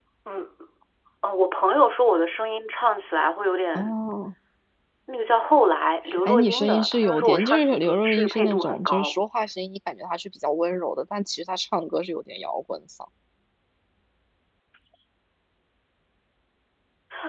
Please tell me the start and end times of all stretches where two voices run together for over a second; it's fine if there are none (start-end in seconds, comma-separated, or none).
6.2-9.1